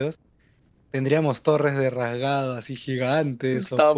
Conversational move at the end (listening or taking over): taking over